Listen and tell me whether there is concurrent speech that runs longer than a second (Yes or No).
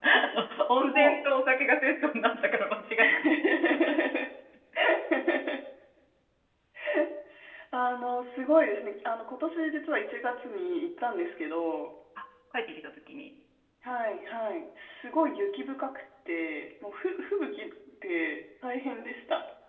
No